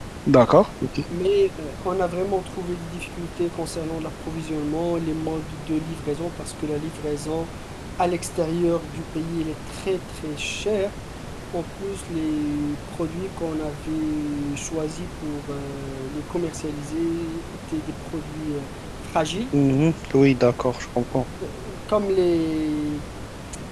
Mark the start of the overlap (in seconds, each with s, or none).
none